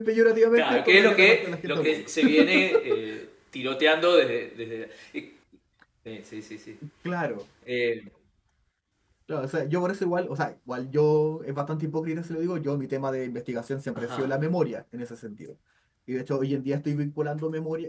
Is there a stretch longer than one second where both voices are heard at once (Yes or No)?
Yes